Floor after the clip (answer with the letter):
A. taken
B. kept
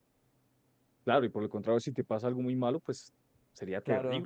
A